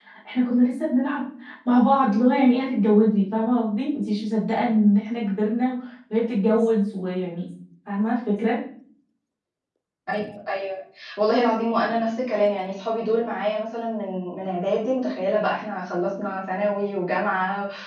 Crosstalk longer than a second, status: none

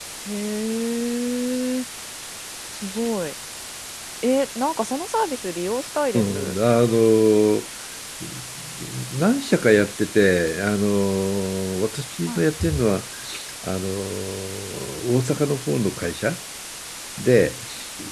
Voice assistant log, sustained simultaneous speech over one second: none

